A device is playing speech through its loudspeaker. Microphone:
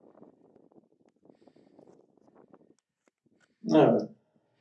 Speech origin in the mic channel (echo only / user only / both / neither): user only